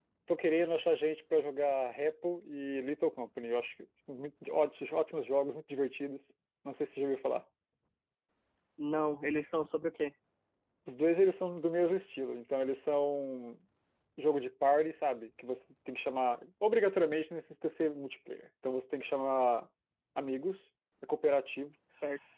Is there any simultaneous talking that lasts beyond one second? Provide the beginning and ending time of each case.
none

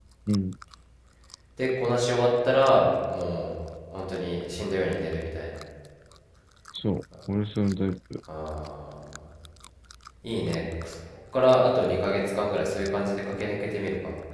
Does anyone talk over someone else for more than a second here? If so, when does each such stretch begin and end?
none

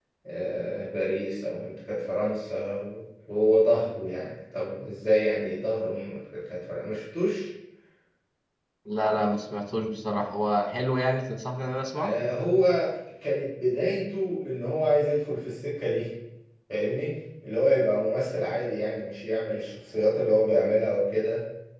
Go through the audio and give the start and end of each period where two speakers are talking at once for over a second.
none

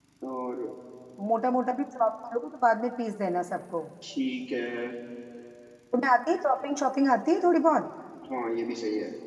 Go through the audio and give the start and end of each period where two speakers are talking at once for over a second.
none

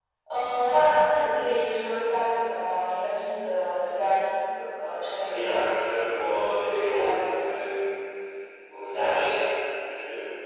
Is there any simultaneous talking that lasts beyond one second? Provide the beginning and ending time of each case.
5.2-7.5

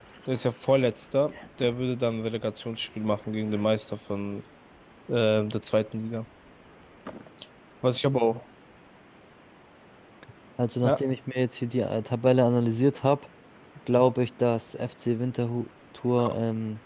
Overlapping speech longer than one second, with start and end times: none

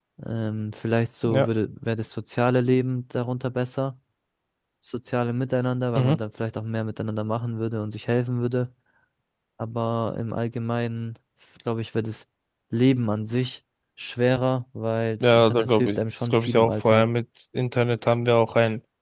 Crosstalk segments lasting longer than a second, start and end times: 15.2-17.0

